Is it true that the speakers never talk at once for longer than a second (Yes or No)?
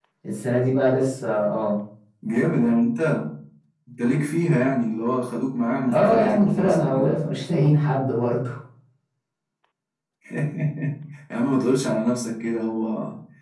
No